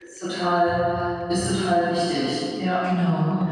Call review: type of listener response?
taking over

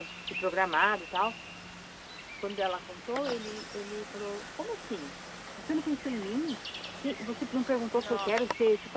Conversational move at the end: listening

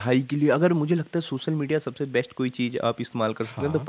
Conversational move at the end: listening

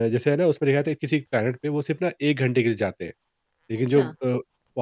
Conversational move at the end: listening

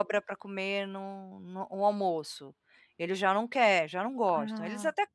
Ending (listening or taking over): listening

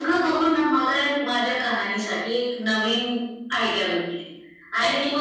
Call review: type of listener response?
listening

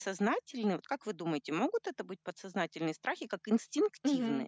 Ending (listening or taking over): taking over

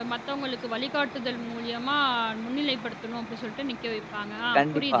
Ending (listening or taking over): taking over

